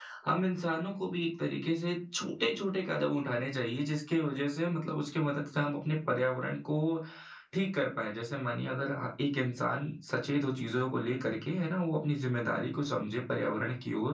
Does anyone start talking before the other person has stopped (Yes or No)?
No